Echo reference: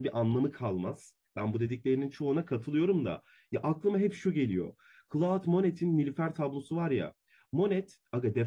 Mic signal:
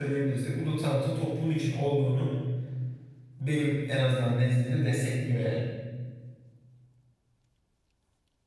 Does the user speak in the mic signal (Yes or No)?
Yes